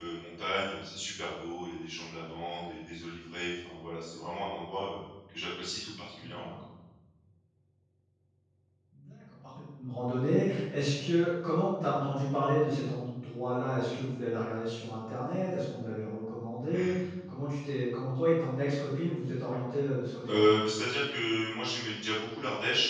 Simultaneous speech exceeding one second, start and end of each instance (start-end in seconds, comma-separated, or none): none